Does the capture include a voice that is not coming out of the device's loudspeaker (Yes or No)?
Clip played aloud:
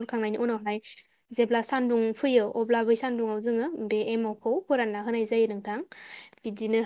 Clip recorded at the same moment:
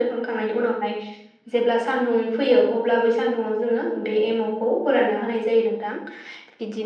No